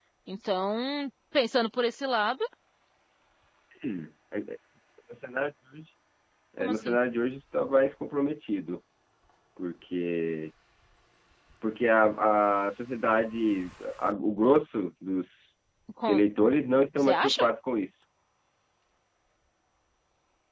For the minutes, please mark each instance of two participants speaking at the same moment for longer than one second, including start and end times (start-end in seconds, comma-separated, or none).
none